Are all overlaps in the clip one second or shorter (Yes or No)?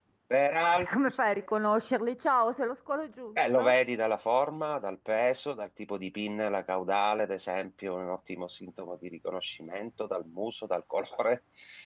Yes